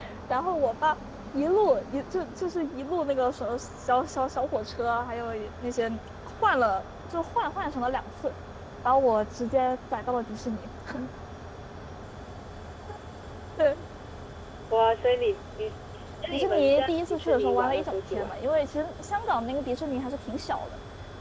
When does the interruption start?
16.3 s

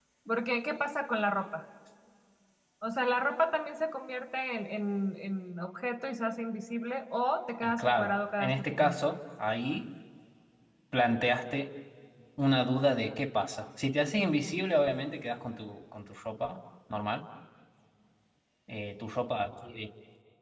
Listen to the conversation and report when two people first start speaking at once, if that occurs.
7.6 s

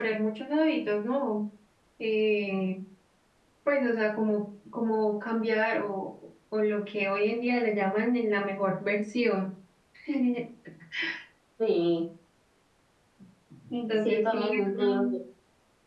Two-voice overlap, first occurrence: 13.9 s

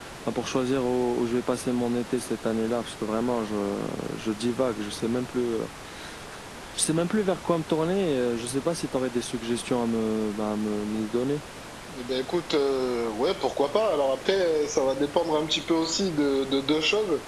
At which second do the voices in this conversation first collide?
none

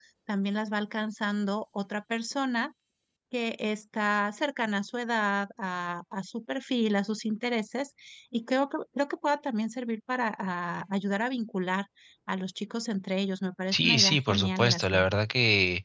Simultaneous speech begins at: 13.7 s

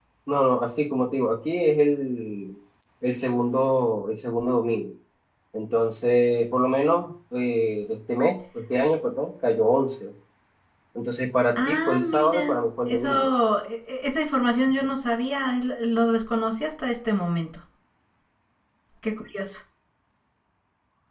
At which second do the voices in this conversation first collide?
11.6 s

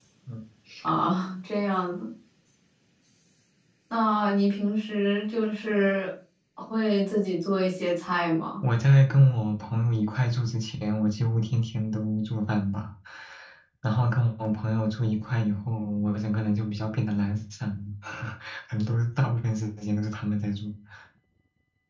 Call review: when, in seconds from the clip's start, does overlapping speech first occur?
none

